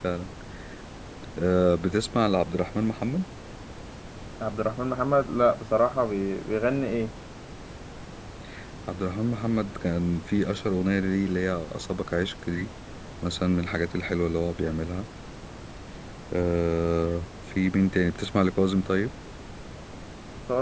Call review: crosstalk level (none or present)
none